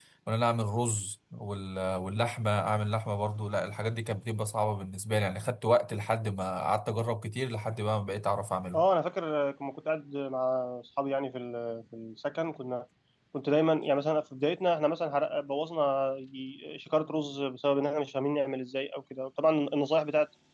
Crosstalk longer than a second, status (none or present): none